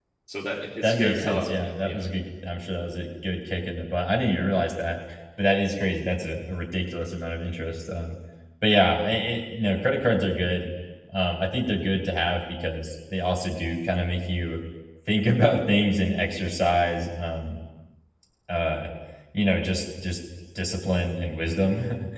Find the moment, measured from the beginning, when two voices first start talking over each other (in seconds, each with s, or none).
0.8 s